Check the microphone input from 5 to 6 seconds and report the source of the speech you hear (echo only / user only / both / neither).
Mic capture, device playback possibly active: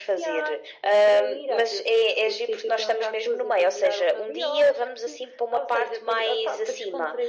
echo only